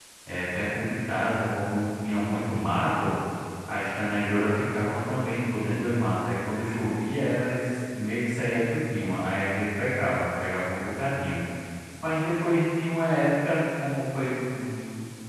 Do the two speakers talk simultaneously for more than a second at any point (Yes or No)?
No